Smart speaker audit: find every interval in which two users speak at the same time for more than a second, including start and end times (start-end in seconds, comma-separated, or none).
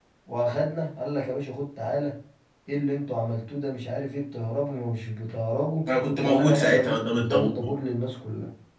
6.2-7.7